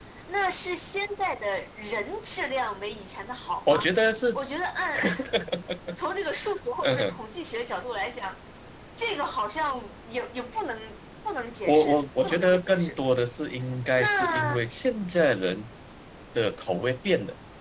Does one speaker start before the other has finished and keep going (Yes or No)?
Yes